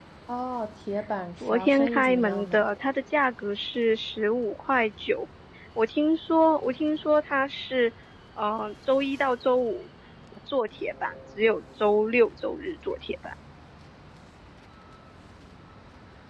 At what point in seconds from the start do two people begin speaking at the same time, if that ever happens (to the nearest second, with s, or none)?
1 s